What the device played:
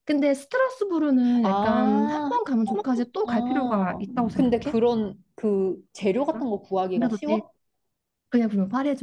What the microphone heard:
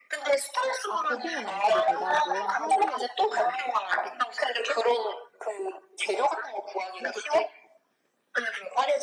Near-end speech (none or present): present